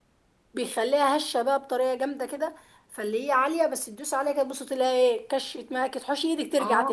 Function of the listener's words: taking over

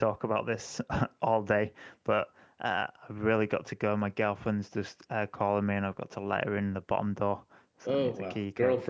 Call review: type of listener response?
taking over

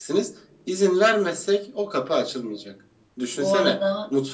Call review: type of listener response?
listening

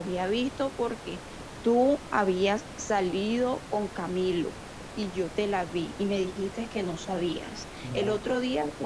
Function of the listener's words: listening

